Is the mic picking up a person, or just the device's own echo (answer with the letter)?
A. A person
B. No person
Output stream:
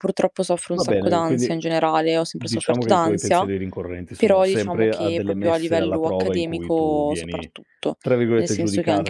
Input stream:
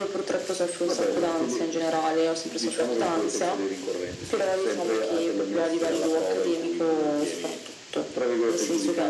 B